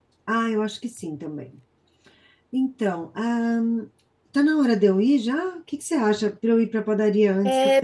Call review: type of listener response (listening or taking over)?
taking over